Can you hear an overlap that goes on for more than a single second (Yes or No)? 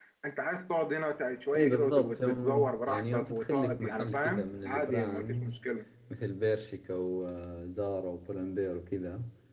Yes